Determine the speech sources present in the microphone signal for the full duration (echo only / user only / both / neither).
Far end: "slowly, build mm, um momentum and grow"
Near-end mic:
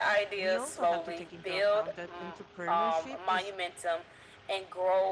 both